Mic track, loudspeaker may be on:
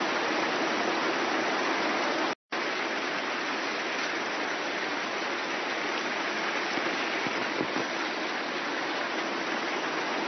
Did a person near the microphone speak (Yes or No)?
No